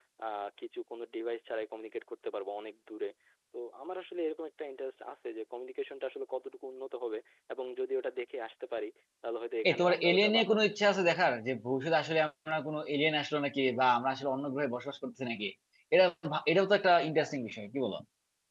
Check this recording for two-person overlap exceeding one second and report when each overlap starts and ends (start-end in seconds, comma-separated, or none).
9.7-11.2